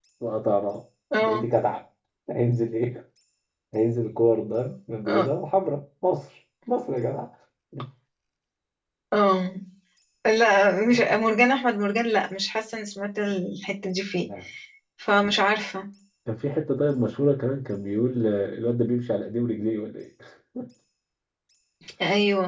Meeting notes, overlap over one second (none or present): none